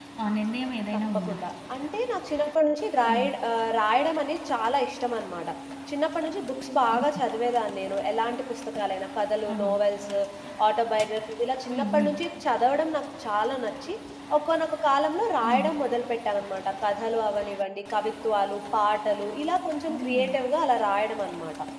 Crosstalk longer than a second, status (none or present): none